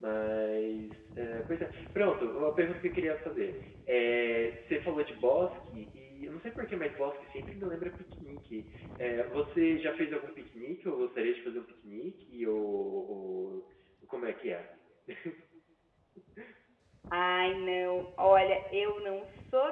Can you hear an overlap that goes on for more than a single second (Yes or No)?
No